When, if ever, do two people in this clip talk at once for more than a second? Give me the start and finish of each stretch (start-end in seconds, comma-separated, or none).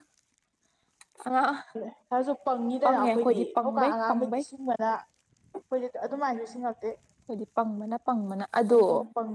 2.8-4.4